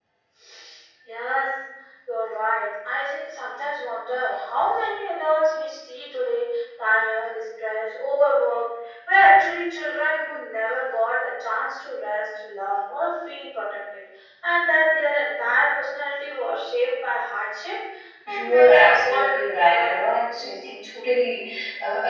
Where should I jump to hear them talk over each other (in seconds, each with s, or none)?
18.3 s